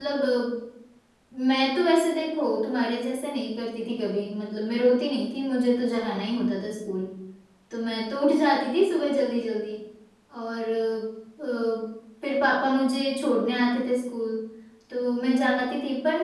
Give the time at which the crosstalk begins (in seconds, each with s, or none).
none